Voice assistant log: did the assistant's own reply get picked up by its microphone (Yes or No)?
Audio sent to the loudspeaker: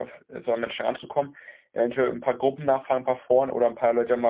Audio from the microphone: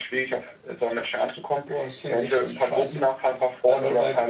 Yes